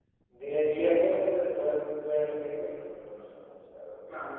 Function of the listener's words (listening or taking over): taking over